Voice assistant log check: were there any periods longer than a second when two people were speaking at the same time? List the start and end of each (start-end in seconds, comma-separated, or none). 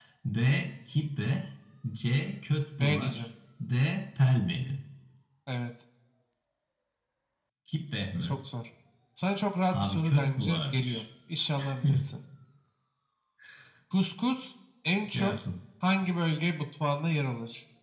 9.7-11.0